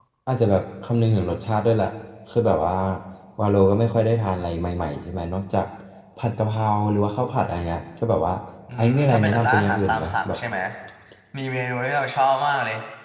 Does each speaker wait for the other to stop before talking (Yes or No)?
No